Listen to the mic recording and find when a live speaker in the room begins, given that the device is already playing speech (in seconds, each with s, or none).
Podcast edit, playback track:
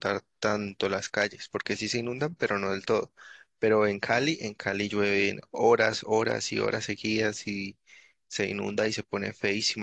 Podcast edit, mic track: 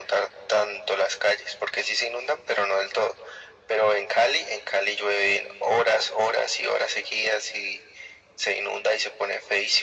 none